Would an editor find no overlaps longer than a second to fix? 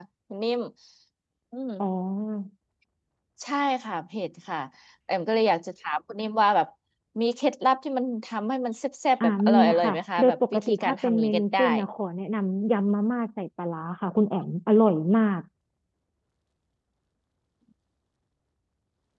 No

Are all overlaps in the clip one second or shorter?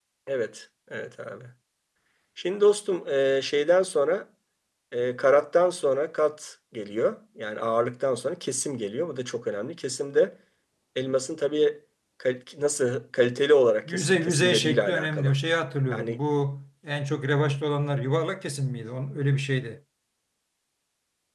No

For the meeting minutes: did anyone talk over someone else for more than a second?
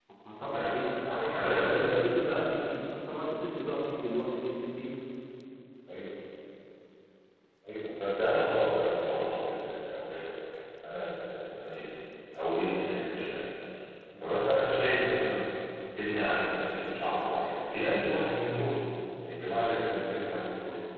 Yes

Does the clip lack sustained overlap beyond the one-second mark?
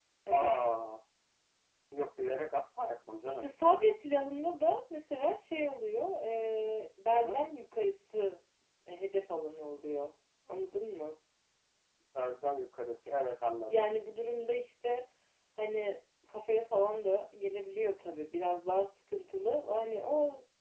Yes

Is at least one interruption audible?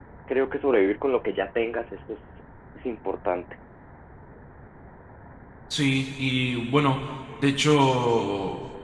No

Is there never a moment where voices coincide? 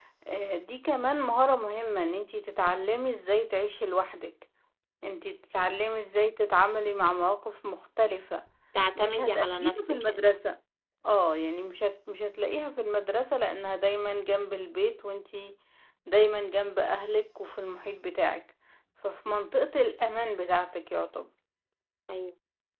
No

